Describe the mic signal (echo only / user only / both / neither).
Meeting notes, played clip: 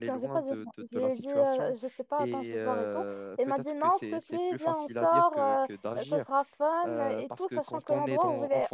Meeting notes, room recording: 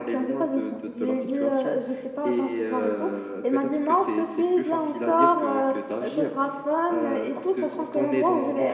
echo only